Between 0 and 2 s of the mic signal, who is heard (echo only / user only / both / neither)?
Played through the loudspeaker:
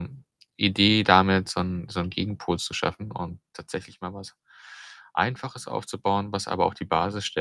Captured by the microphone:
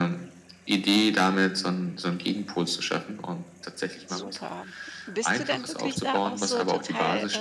echo only